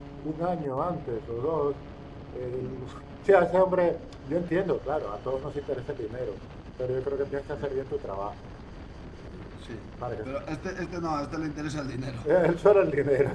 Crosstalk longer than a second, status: none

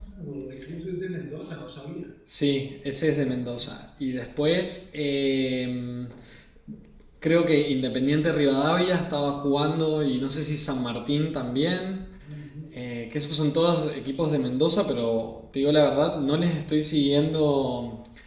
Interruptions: none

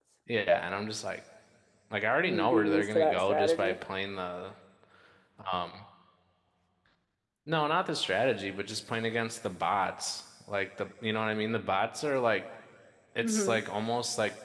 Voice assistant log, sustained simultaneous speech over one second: present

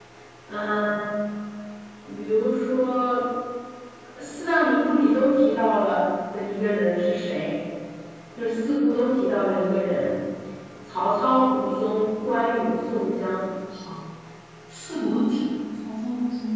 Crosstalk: none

